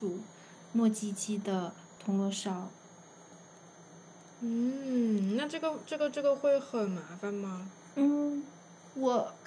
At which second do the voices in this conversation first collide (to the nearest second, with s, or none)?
none